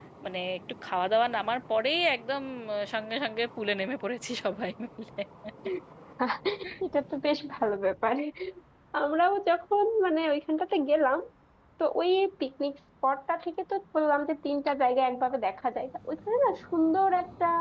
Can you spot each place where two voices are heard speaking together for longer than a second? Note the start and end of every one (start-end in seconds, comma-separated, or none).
none